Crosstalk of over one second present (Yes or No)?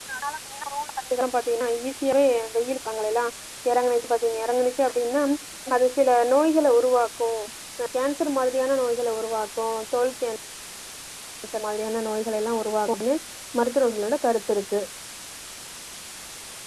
No